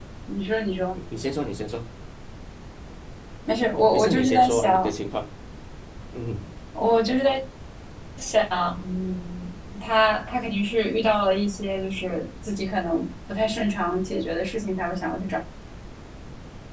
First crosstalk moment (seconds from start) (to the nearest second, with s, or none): 4 s